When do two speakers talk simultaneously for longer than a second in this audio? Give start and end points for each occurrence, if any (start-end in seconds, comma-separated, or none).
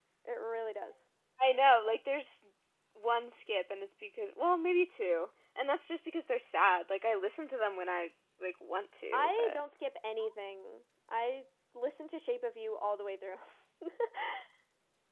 none